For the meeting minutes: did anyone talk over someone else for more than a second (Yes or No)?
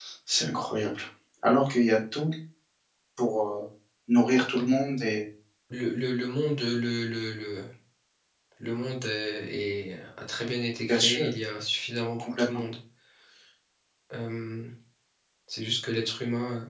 No